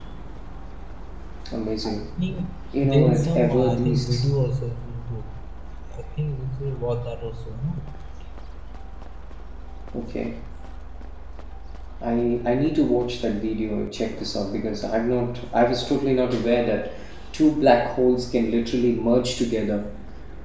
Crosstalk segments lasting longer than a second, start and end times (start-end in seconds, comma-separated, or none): 2.8-4.2